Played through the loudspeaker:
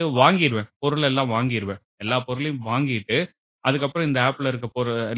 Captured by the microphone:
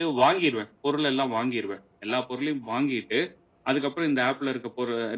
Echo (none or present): present